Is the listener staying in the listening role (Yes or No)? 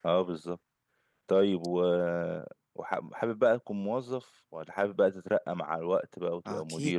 No